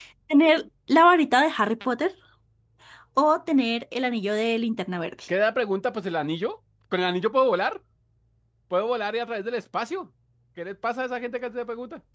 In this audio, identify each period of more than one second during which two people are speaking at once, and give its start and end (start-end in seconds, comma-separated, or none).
none